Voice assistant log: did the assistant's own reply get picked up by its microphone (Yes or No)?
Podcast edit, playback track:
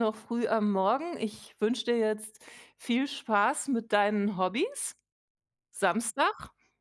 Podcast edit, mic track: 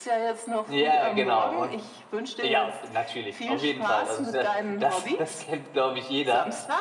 Yes